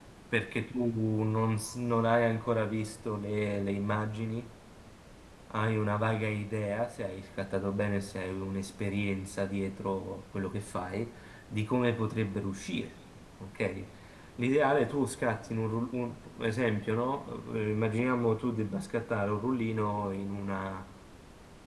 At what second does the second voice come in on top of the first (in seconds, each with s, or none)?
none